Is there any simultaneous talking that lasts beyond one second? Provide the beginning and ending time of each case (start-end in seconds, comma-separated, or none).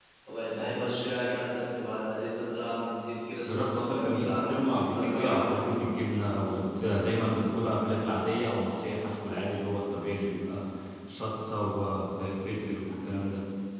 3.4-5.8